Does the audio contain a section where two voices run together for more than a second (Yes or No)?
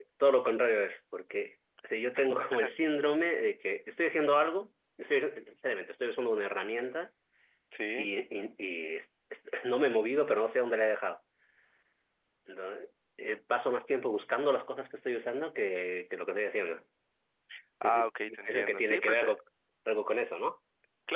Yes